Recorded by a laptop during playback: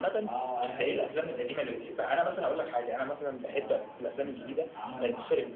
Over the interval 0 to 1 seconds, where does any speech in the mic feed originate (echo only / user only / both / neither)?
both